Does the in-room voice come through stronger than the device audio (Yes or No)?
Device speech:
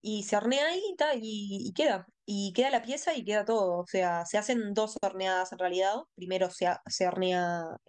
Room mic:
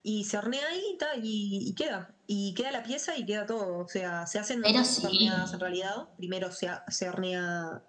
Yes